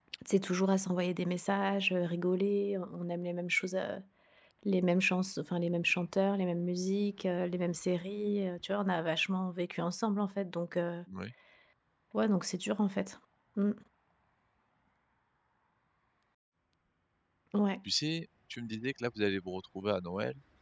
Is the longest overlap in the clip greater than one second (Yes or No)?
No